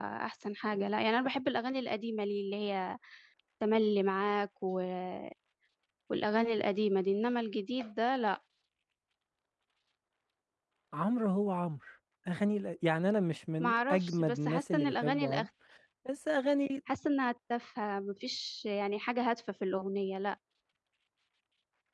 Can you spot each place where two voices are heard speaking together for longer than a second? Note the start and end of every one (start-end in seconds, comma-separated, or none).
13.6-15.5